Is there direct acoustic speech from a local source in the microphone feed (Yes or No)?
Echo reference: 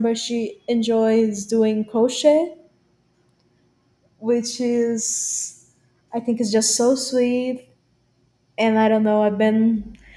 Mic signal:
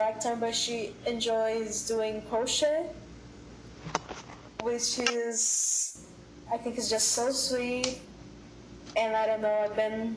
No